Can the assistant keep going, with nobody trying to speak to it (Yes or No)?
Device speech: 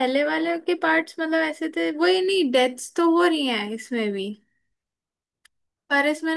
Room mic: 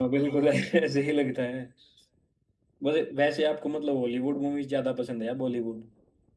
No